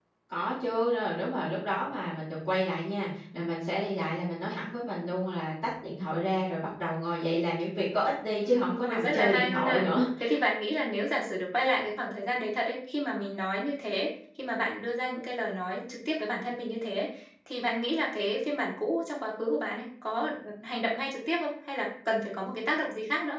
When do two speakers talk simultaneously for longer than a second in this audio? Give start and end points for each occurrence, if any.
8.4-9.8

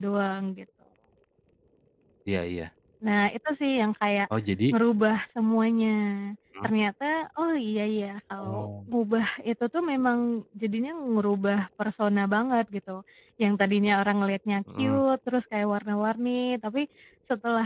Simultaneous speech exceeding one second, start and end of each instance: none

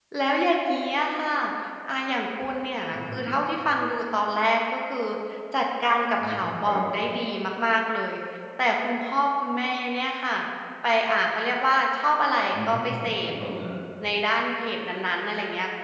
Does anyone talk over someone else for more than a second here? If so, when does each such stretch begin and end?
none

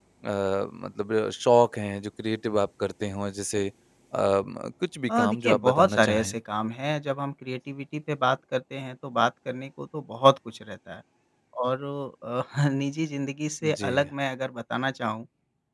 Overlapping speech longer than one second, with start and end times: 5.1-6.3

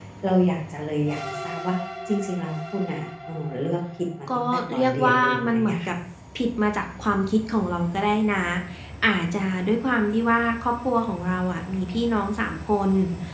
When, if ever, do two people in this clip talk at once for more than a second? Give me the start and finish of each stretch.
4.3-5.9

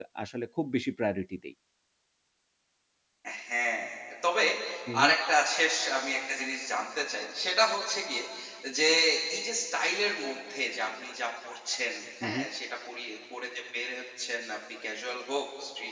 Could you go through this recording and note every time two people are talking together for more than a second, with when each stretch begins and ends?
none

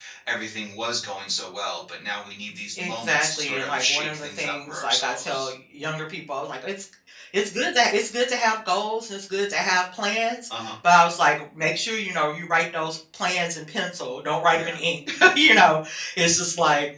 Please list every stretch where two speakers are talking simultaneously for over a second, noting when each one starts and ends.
2.8-5.5

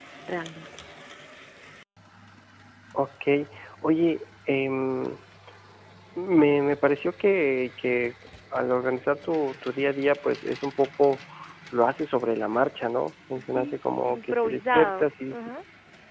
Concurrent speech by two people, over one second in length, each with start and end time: 13.4-15.4

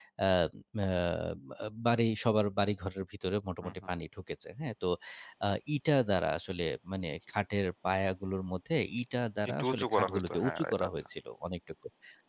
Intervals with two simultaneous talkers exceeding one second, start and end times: 9.5-10.9

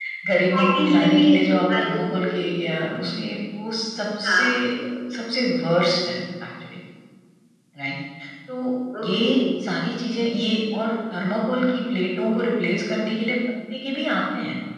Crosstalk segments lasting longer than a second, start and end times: 0.5-2.5

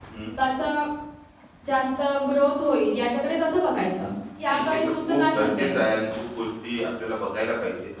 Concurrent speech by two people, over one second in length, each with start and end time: 4.5-5.8

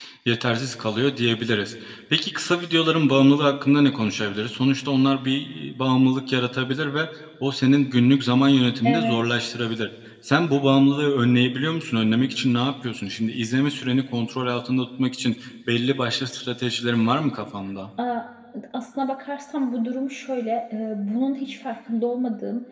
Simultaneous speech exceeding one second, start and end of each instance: none

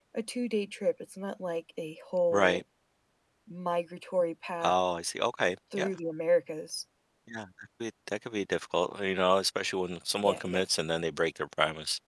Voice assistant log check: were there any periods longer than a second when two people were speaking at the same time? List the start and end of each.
none

